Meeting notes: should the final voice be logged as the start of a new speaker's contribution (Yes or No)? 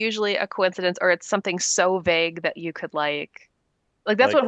No